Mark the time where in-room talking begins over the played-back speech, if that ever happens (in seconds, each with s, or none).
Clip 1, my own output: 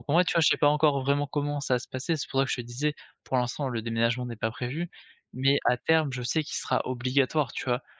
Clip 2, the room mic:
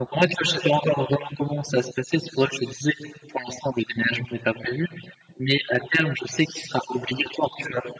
none